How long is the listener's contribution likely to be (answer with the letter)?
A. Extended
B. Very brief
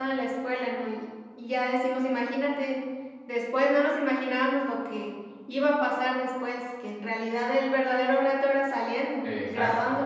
A